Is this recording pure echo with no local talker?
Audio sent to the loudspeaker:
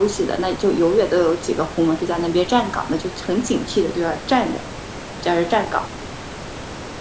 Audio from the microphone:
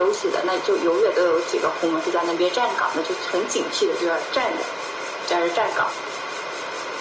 Yes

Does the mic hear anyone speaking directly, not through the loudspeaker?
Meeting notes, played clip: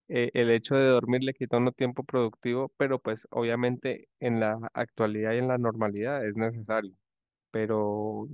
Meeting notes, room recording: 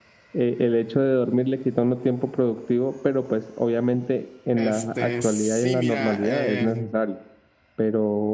Yes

